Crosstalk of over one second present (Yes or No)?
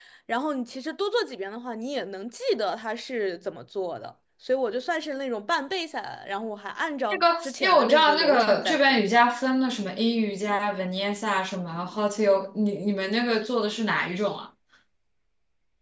Yes